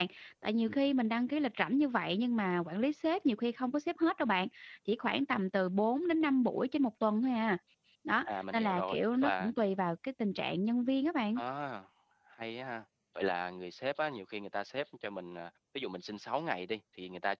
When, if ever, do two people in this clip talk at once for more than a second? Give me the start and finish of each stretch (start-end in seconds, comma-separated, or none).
8.2-9.5